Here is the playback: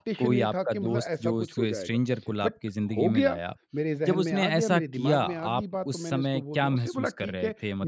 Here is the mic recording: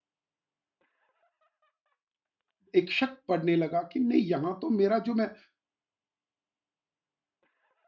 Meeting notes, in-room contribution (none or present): present